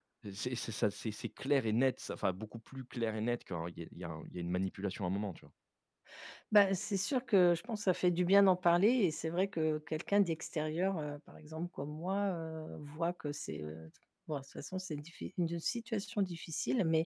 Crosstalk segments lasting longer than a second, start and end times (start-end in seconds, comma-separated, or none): none